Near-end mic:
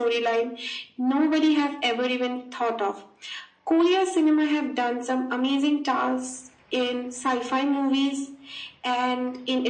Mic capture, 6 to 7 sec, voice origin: echo only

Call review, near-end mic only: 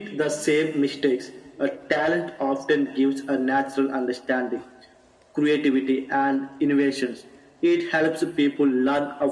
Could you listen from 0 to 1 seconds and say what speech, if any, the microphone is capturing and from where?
echo only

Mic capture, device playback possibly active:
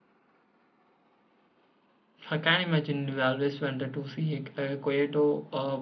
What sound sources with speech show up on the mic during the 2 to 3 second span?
user only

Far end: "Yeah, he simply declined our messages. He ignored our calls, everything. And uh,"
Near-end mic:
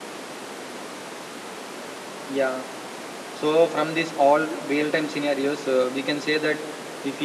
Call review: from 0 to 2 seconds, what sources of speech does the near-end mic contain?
neither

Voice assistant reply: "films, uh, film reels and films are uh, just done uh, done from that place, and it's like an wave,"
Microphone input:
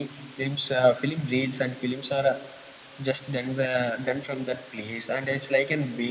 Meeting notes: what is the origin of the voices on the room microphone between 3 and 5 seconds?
echo only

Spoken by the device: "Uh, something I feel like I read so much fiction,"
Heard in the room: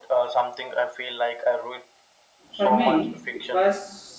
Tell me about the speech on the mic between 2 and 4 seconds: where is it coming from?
both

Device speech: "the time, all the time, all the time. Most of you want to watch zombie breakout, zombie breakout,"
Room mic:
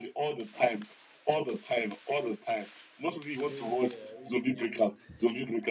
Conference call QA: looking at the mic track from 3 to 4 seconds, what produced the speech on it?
both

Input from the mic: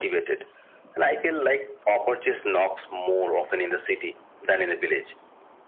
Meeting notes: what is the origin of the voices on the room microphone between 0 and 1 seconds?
echo only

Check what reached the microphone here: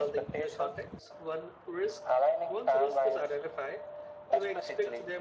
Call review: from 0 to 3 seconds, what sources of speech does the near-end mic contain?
both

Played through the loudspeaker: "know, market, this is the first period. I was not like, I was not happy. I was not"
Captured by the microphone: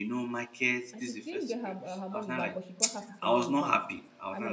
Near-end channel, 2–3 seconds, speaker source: both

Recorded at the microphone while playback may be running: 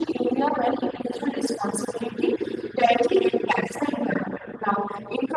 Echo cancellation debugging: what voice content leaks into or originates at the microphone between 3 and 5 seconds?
echo only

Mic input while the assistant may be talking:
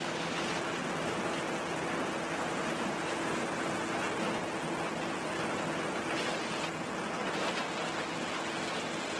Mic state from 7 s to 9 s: neither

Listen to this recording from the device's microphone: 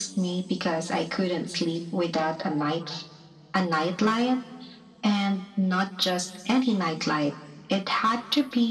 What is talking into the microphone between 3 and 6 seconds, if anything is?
echo only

